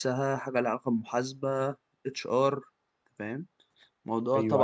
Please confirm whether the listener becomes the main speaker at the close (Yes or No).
Yes